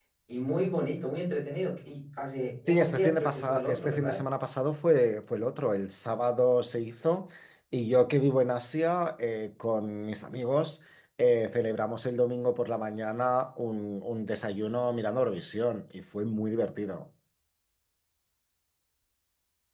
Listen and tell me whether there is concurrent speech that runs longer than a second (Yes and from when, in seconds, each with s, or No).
Yes, from 2.6 s